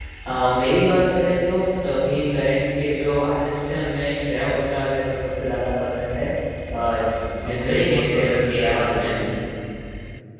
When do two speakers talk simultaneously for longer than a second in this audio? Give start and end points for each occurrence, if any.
7.4-9.1

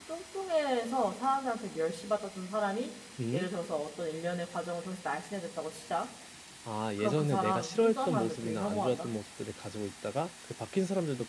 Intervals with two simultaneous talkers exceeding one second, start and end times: 7.0-9.1

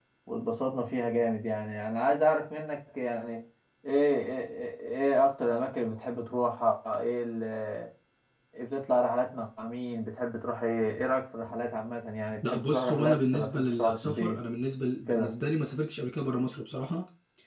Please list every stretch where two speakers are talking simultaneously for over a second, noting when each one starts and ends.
12.5-14.4

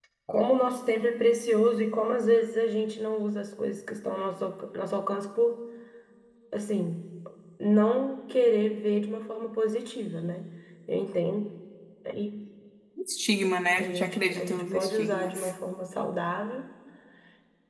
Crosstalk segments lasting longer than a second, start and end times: 13.7-15.5

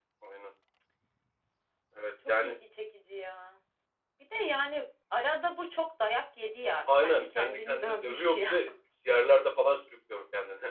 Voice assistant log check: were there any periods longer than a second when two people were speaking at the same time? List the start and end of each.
7.0-8.5

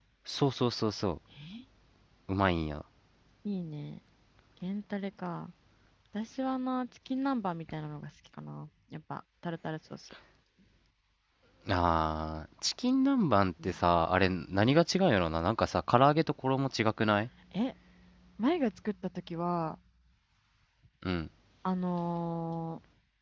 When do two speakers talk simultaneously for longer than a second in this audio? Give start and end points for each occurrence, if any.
none

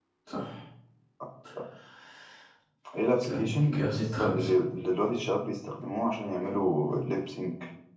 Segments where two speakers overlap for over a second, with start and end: 3.2-4.5

